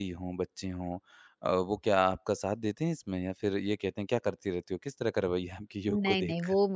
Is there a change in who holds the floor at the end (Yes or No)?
Yes